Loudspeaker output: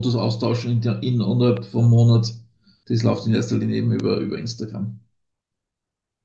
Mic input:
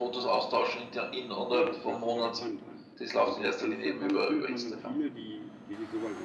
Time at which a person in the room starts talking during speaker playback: 1.5 s

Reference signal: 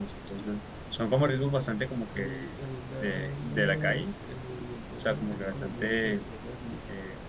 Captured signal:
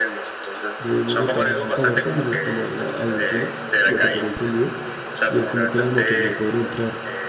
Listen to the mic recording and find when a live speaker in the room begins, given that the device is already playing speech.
0.8 s

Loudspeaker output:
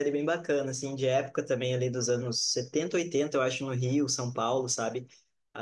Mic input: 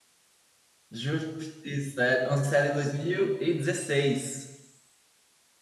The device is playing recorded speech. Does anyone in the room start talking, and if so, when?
0.9 s

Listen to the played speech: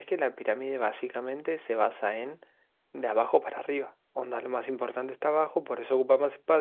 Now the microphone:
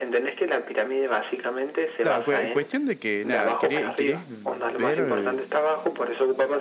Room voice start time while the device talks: 2.0 s

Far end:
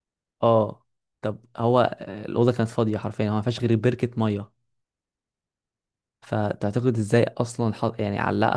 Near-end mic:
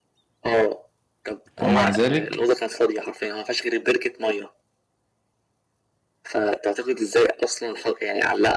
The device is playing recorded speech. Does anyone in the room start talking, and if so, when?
1.6 s

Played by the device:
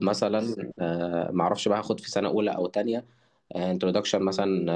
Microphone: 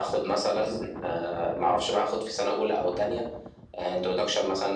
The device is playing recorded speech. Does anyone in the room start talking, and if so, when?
none

